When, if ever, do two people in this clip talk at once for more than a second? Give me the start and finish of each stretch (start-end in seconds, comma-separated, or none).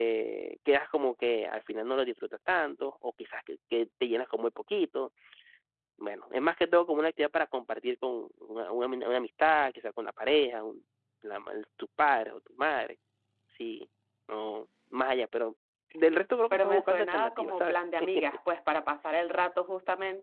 16.5-17.7